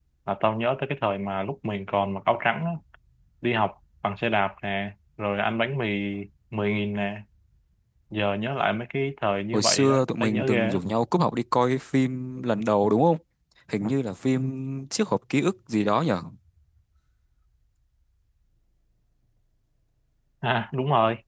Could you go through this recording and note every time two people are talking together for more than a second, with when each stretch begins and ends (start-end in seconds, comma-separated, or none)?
9.5-10.8